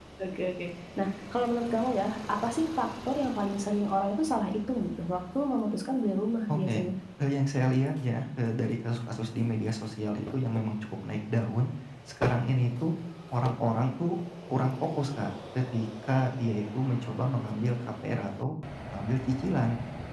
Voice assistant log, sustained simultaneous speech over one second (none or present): none